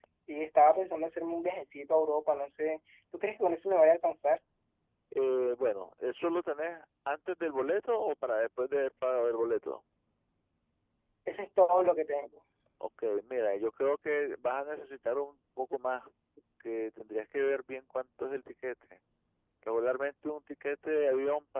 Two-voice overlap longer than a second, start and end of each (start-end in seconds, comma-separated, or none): none